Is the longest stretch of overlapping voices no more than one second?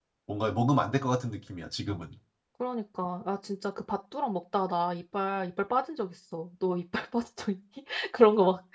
Yes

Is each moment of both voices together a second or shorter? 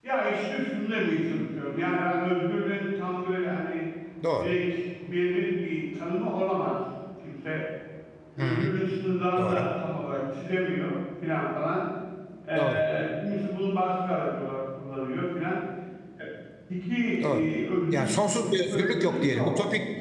No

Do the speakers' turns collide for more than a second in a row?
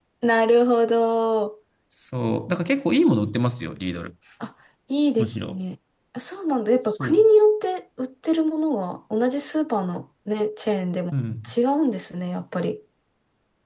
No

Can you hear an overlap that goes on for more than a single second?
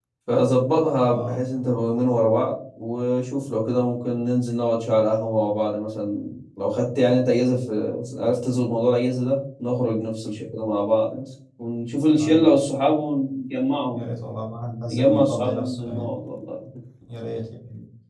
Yes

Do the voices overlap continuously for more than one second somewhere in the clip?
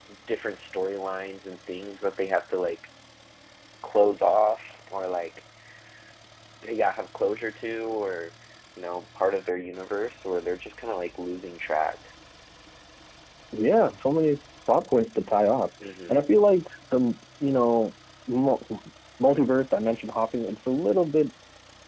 No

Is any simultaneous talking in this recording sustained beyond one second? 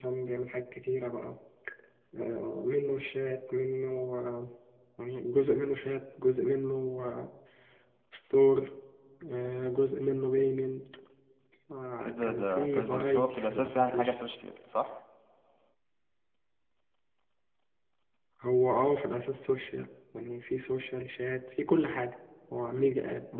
Yes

